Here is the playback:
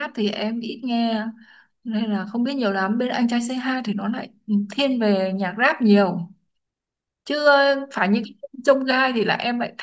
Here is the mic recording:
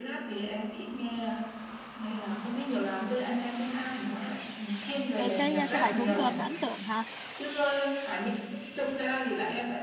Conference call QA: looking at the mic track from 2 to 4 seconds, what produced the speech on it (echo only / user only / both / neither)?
echo only